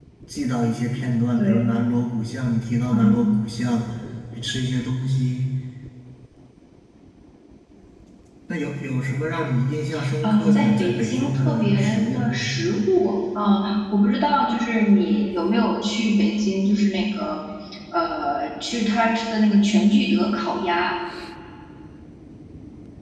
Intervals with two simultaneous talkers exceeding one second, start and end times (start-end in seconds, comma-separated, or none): 10.2-12.3